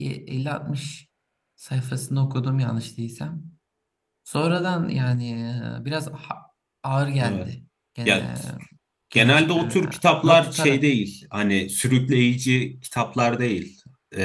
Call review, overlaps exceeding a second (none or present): present